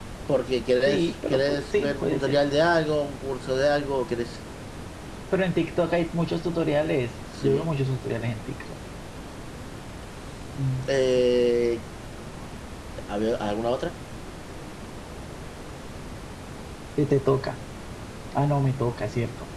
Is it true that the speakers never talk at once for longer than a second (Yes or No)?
No